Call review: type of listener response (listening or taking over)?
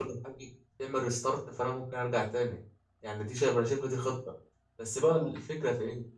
listening